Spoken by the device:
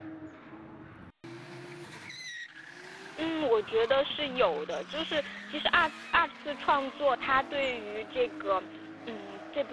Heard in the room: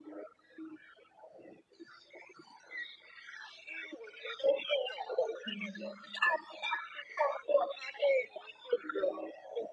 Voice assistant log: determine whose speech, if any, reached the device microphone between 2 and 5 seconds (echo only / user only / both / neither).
echo only